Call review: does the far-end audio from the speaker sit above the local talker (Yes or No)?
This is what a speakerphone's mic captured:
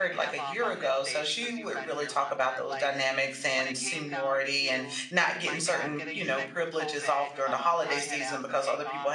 No